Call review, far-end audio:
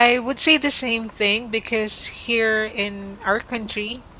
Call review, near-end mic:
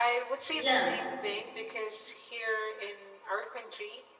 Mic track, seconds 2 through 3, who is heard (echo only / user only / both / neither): echo only